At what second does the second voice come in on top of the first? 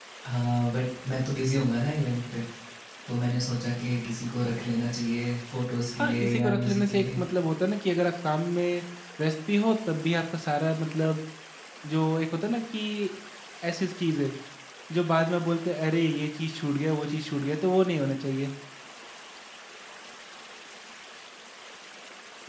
6 s

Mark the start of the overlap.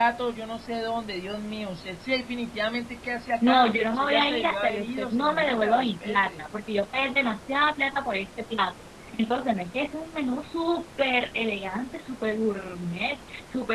3 s

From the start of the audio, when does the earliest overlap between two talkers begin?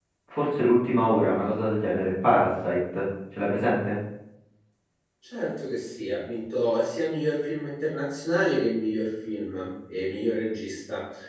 none

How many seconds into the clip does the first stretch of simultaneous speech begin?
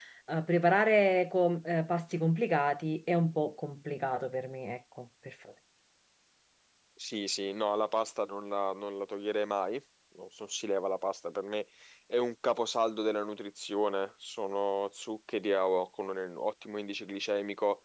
none

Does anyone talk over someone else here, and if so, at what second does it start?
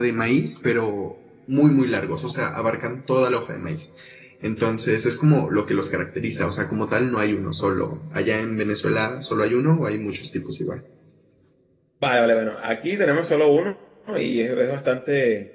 none

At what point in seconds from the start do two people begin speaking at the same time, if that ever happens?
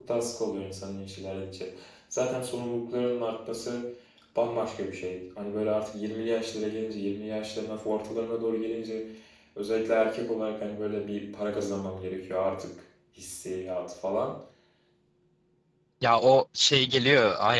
none

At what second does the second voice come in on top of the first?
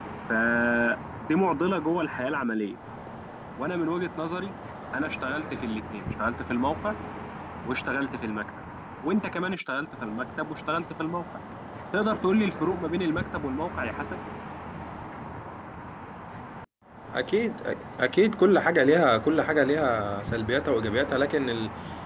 none

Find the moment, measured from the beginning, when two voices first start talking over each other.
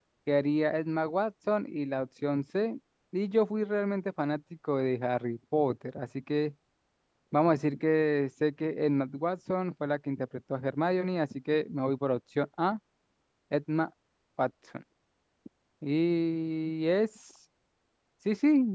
none

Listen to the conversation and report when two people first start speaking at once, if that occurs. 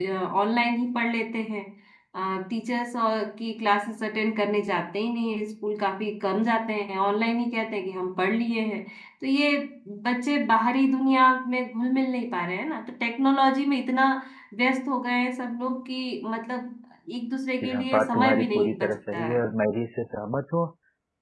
18 s

